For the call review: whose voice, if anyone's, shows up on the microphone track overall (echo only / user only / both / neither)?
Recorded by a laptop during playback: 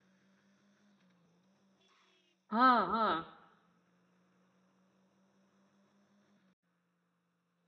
user only